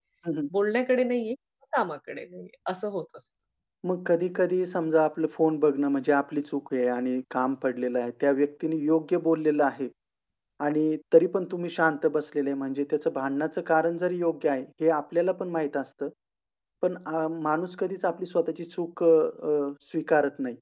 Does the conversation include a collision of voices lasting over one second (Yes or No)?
No